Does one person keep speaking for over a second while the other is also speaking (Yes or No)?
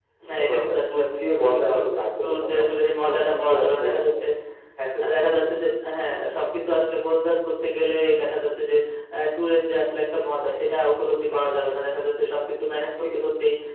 Yes